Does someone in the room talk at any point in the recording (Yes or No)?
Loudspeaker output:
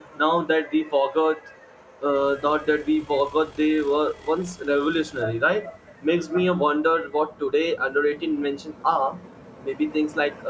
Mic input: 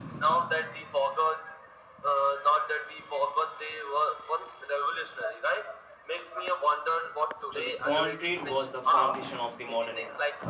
Yes